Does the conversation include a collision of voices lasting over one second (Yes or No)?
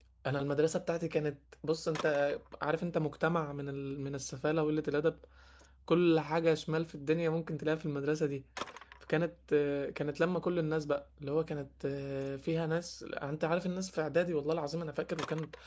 No